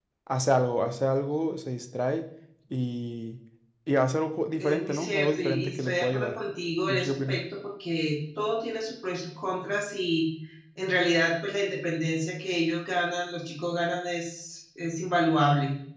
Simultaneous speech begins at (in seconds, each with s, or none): 4.6 s